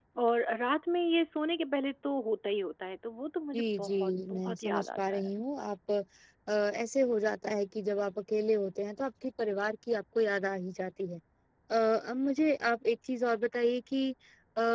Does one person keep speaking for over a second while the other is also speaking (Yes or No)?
Yes